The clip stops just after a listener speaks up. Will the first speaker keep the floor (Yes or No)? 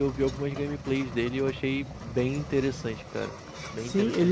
No